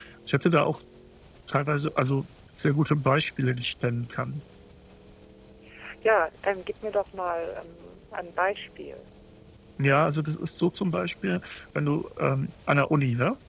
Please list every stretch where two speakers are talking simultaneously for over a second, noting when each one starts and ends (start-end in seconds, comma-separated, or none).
none